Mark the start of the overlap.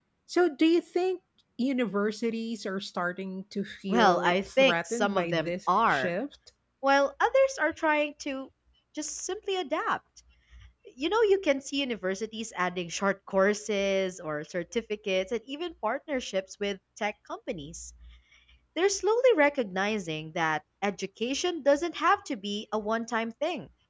3.9 s

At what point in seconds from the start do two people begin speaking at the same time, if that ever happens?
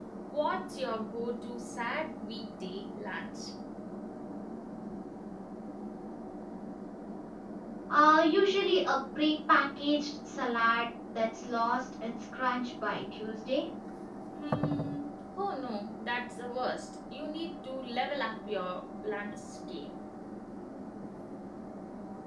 none

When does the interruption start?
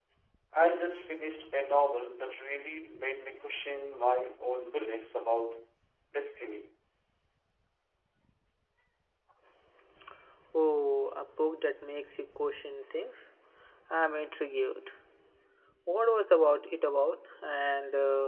none

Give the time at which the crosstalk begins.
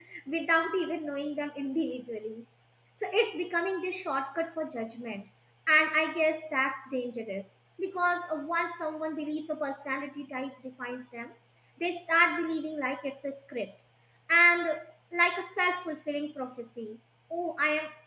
none

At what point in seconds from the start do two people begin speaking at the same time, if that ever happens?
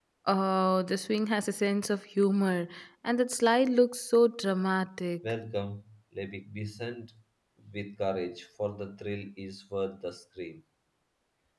none

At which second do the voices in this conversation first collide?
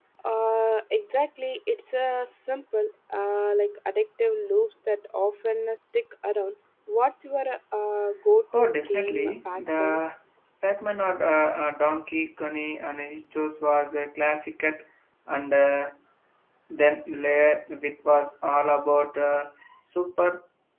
8.5 s

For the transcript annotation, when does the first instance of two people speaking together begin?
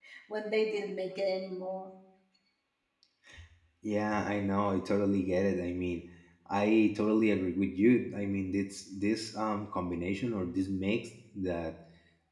none

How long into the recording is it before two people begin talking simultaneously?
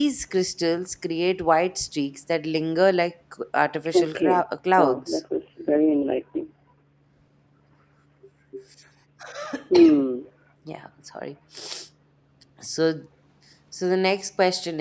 3.9 s

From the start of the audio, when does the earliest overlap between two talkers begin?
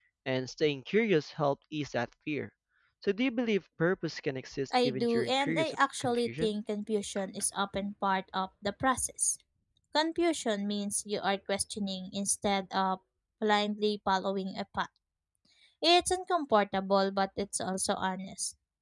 4.7 s

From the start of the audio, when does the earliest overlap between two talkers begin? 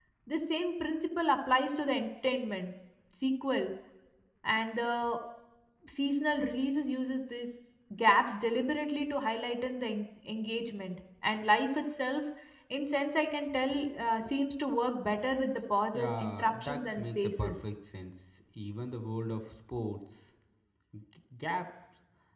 15.9 s

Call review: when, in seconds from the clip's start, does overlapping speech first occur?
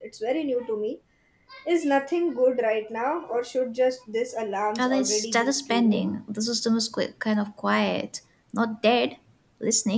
4.8 s

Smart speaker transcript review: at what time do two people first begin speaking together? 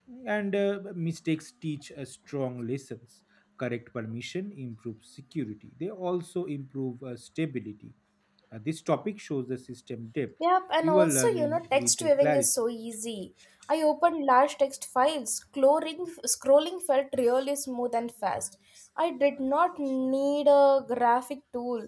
10.8 s

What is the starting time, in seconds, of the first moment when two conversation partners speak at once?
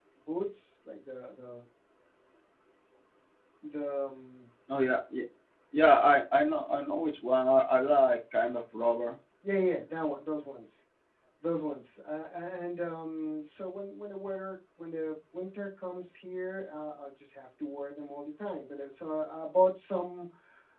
none

